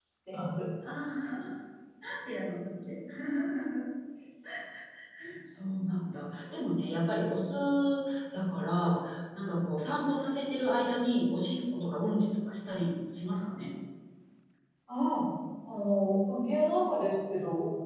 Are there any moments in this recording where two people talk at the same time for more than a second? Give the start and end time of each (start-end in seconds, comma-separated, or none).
none